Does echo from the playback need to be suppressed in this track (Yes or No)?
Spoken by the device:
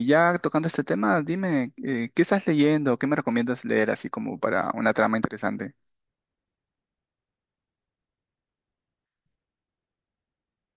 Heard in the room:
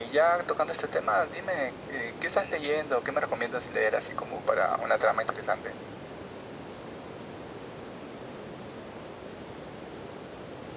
Yes